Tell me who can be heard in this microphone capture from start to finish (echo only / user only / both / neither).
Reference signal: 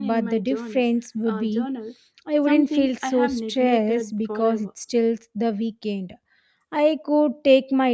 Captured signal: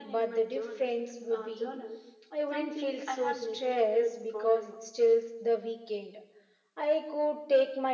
echo only